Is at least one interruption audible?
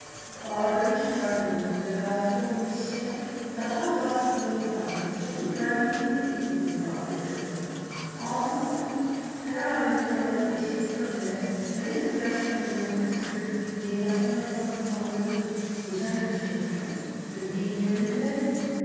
No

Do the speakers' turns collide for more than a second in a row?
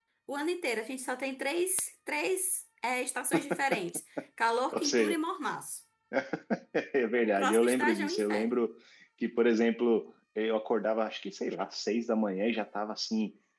Yes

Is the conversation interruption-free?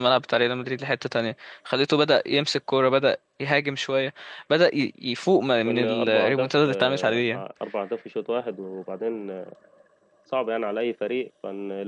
No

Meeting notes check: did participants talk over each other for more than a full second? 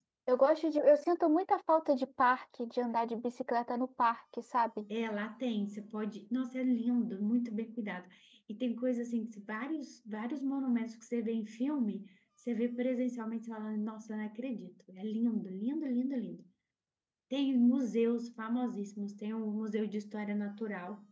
No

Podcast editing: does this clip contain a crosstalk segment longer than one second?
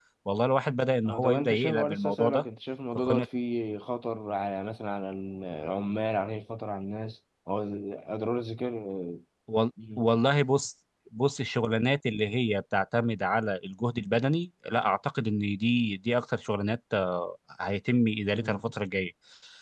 Yes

